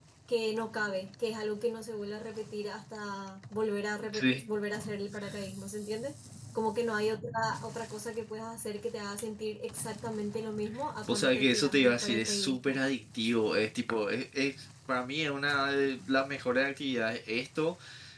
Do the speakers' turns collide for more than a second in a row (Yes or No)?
Yes